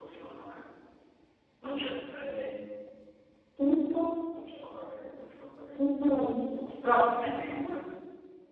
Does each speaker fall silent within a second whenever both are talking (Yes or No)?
Yes